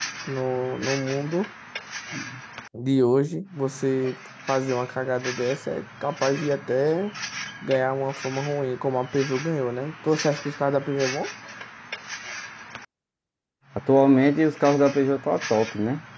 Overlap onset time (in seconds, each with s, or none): none